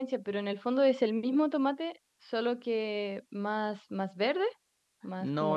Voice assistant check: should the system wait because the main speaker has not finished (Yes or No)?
No